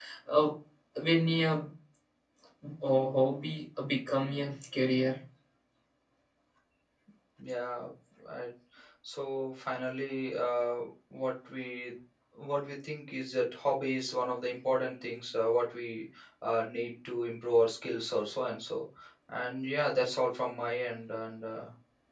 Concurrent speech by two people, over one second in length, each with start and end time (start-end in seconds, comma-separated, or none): none